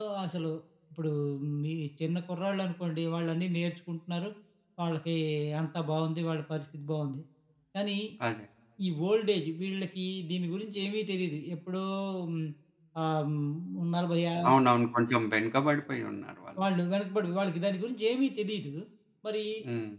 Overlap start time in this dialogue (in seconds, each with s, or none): none